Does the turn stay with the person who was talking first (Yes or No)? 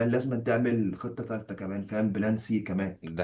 Yes